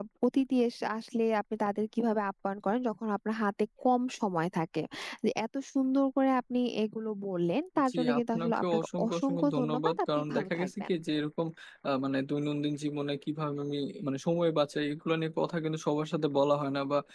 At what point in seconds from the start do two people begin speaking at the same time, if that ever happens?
7.9 s

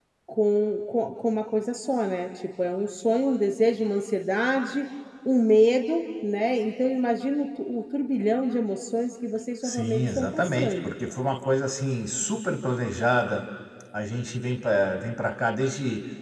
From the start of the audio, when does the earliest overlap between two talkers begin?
9.6 s

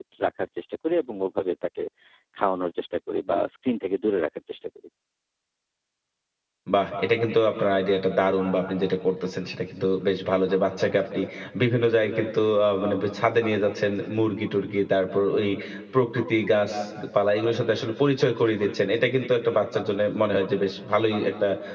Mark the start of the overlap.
none

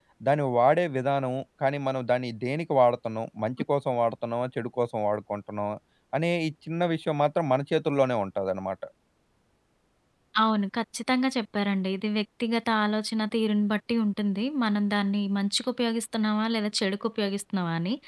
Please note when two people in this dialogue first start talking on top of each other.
none

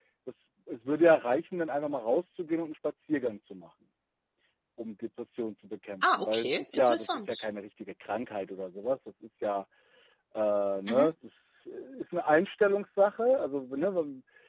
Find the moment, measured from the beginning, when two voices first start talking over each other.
6.0 s

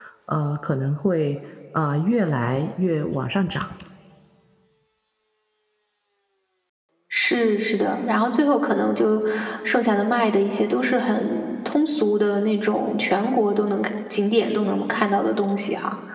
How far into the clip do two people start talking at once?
none

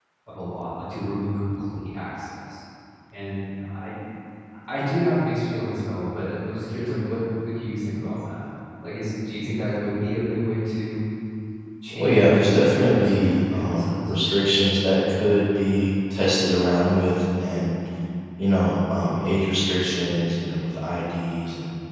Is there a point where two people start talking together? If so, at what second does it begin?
11.9 s

